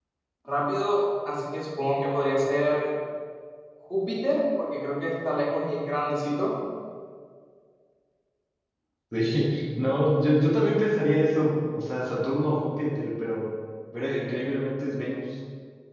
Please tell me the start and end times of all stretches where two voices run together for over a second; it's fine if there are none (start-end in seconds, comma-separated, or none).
none